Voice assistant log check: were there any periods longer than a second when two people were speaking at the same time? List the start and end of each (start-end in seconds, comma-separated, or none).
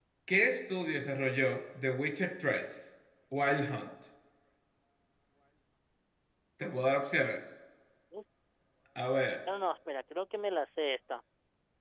none